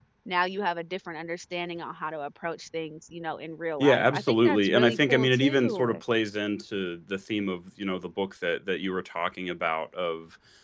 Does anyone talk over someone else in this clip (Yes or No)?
Yes